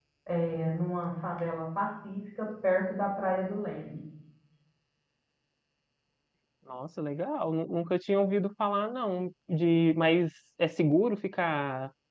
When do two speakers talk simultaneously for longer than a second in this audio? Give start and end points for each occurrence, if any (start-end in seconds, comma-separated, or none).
none